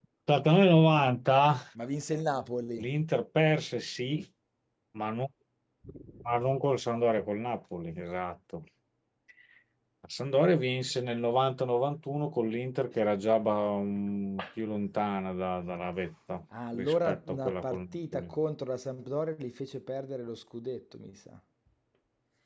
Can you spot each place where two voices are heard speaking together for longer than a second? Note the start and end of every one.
16.7-18.4

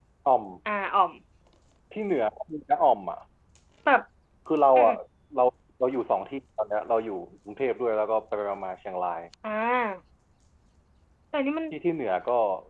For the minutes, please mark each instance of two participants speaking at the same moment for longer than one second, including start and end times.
none

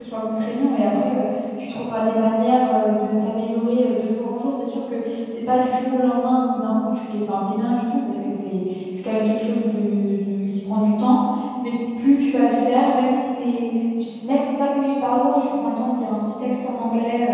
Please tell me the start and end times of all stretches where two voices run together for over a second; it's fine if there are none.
none

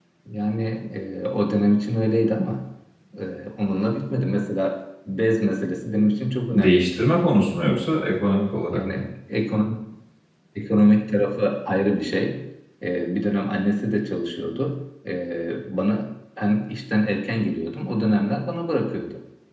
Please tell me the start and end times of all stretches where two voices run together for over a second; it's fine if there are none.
none

